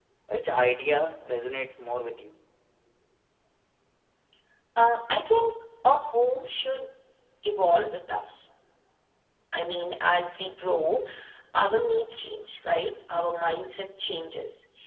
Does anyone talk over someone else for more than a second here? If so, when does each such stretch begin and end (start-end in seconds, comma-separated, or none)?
none